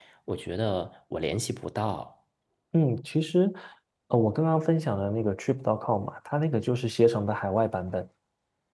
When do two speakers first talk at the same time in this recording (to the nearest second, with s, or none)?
none